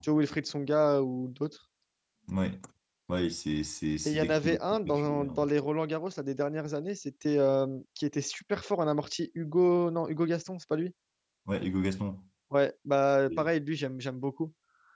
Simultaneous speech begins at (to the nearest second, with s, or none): 4 s